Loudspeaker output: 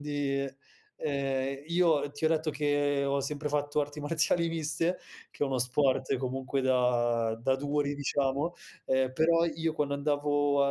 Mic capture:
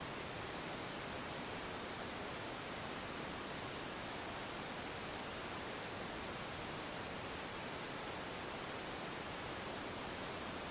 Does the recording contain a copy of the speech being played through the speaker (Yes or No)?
No